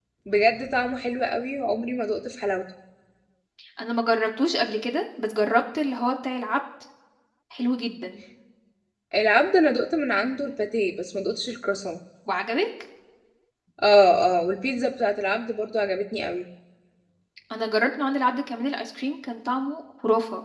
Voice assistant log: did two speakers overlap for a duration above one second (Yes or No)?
No